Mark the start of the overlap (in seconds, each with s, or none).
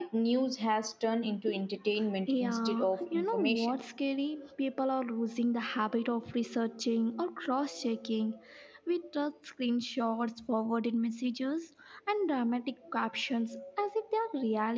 2.3 s